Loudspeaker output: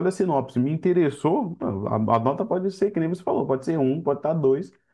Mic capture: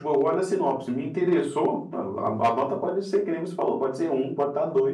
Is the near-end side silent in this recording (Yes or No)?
Yes